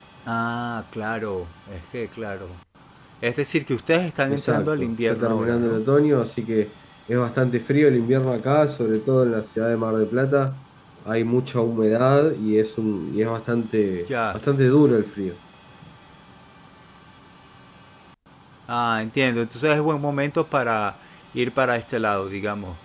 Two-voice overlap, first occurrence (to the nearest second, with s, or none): 4 s